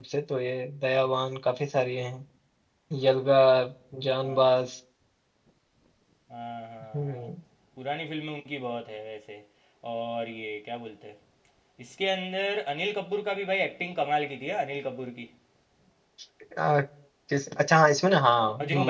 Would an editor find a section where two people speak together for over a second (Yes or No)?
No